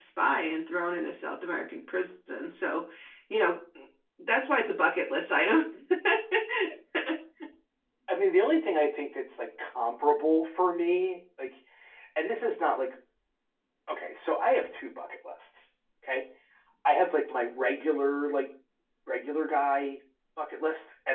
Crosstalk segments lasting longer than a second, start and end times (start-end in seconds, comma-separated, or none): none